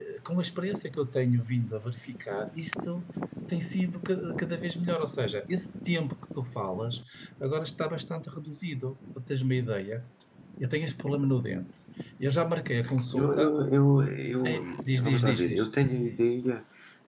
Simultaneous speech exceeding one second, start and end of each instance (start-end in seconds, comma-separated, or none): 14.4-15.7